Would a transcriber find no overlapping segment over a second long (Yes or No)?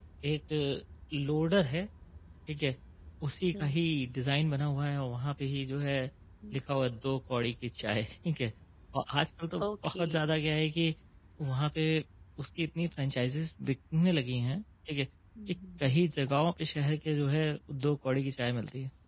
Yes